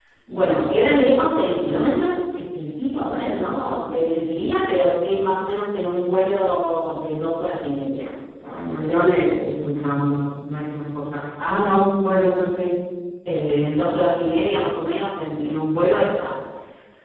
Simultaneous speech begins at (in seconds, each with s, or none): none